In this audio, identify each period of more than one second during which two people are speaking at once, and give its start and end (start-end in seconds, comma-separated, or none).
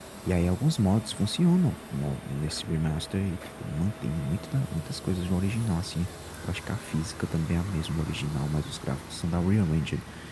none